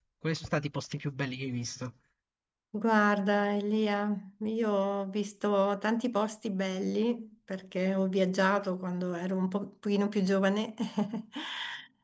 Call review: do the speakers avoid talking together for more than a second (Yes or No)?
Yes